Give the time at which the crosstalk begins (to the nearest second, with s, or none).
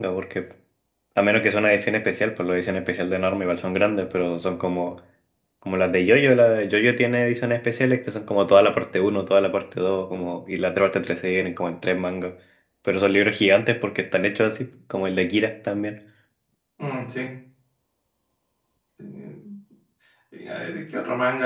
none